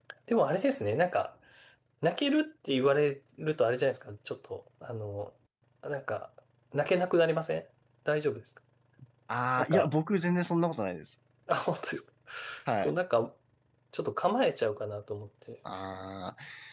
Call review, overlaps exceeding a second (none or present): none